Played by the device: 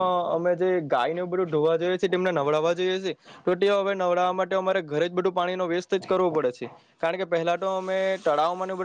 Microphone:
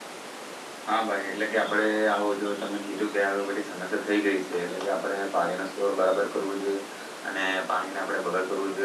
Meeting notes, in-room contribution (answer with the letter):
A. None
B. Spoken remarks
B